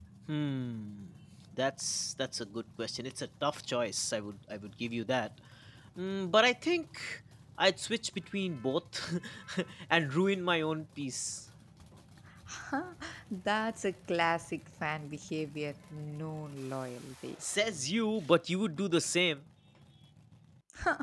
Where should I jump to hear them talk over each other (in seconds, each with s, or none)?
none